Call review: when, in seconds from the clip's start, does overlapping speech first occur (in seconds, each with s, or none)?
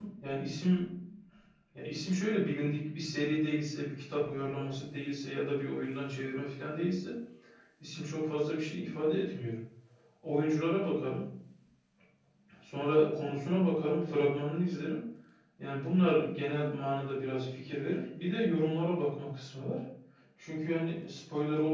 none